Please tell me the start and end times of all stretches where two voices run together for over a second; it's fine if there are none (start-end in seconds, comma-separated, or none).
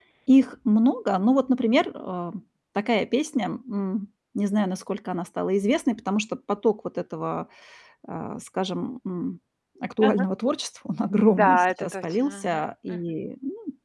11.4-13.0